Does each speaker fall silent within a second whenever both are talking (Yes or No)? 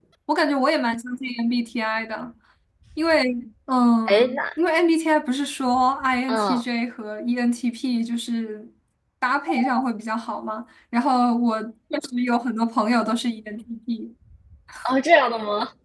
Yes